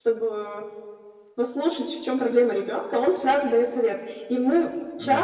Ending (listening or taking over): listening